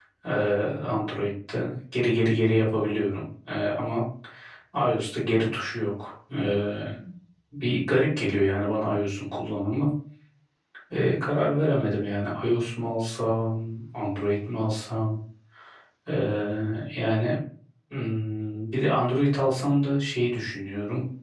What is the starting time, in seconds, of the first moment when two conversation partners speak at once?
none

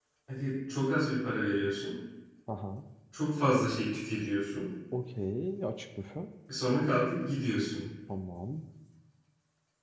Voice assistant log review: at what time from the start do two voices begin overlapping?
none

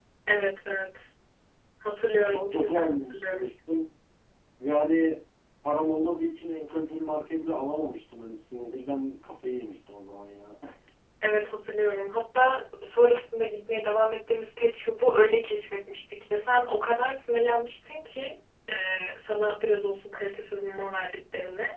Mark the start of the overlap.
2.2 s

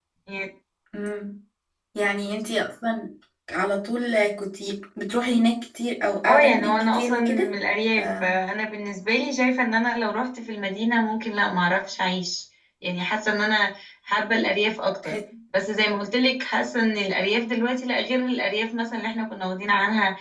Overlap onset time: 6.2 s

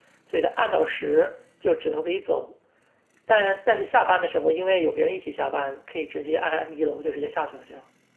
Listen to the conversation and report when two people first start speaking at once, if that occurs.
none

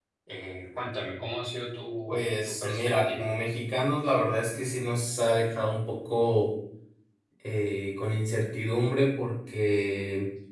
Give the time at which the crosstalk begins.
2.1 s

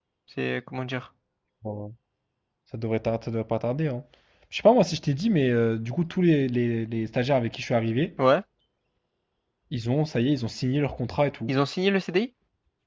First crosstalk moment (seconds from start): none

